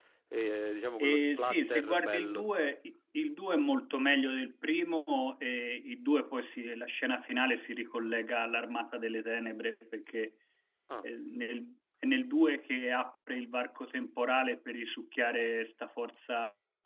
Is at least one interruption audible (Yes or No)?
Yes